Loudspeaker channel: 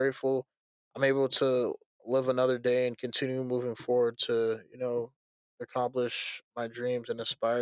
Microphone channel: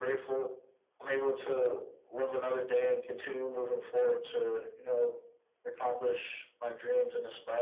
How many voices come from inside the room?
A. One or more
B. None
B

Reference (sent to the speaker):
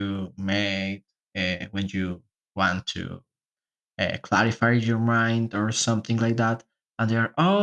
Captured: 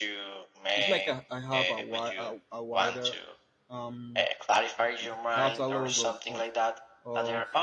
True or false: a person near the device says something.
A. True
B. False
A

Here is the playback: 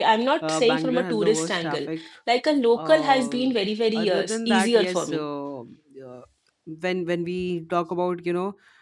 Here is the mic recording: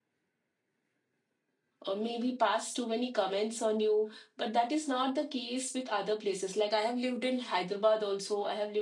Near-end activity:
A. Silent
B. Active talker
B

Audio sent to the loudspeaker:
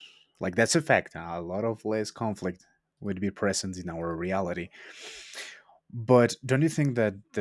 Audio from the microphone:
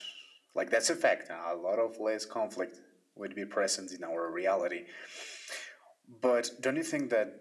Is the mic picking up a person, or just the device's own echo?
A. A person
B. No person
B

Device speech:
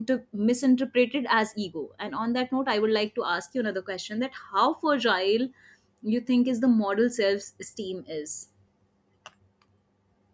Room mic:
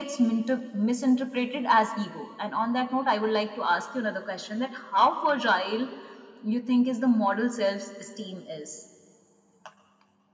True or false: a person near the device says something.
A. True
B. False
B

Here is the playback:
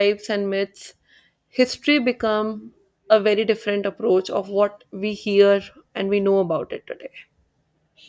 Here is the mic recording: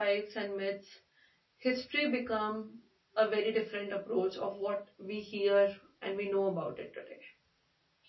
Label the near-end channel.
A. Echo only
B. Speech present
A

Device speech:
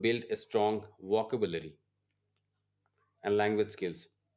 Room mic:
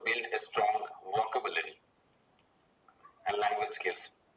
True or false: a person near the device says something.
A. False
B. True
A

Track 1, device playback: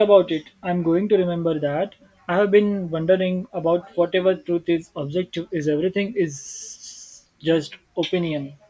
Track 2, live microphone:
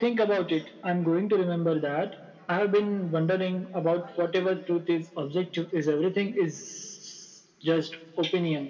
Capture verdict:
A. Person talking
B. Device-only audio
B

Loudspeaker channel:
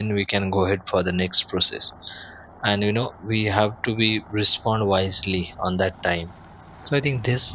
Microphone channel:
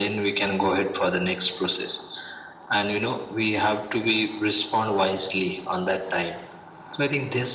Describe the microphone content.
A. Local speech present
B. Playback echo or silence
B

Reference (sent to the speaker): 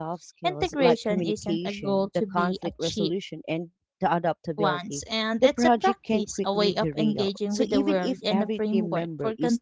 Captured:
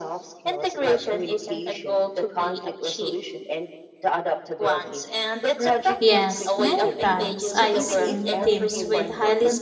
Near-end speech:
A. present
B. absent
A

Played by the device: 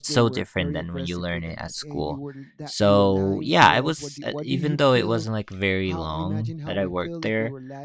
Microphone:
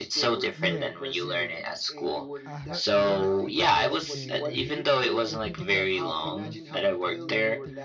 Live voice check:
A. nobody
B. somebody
B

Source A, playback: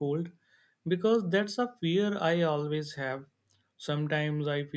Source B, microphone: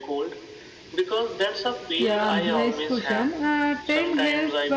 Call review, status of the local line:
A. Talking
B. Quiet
A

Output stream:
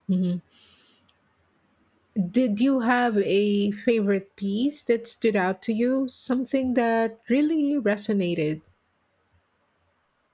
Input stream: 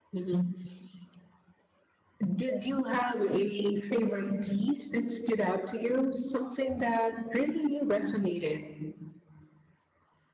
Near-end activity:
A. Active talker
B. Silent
B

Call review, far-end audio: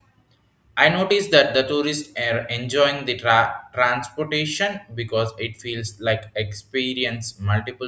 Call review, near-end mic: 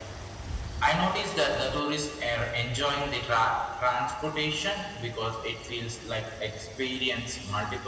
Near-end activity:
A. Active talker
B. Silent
B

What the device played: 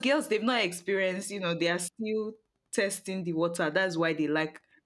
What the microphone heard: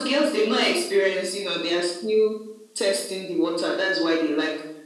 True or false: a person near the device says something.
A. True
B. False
B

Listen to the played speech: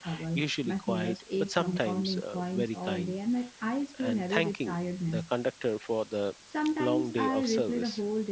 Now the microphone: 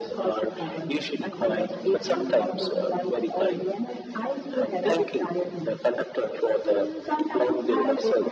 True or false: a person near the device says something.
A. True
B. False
A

